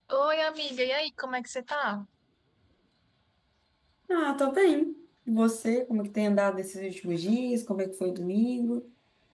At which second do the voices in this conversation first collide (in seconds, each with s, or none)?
none